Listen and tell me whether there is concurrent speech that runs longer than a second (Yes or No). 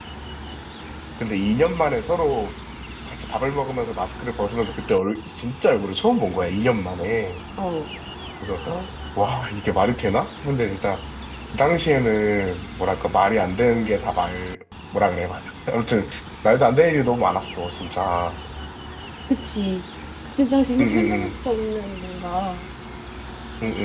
No